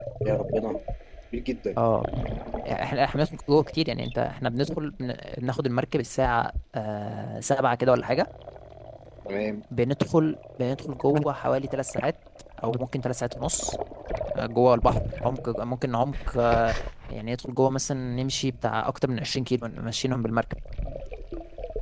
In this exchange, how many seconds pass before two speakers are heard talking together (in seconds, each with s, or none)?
none